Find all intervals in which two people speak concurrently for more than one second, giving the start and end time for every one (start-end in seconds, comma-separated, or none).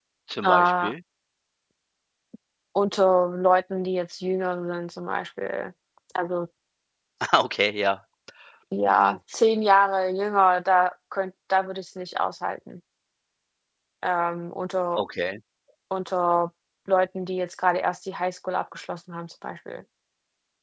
none